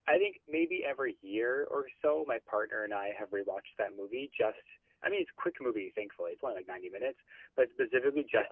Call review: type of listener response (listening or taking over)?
listening